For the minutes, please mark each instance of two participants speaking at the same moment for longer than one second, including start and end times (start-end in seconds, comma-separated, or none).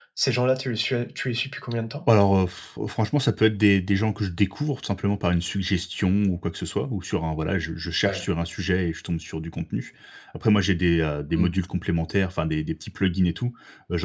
none